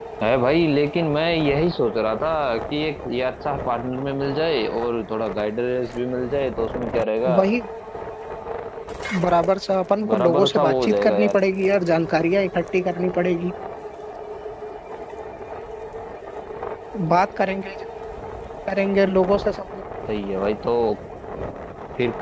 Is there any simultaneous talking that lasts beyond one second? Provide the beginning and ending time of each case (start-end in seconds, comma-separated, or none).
10.1-11.4